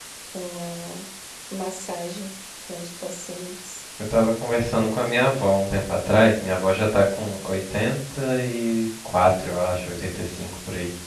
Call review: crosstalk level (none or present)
none